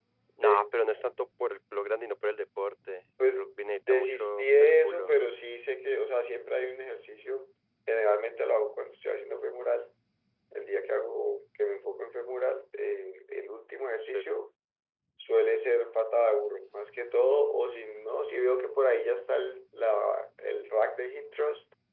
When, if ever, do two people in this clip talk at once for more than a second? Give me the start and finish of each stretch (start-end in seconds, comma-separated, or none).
3.9-5.1